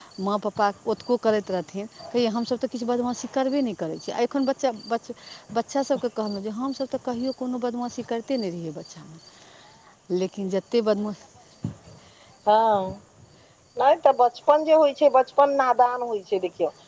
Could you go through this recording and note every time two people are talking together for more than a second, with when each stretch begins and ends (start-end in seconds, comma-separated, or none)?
none